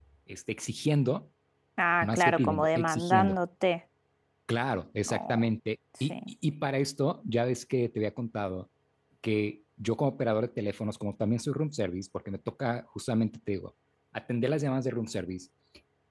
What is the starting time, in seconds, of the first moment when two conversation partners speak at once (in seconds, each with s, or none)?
2.0 s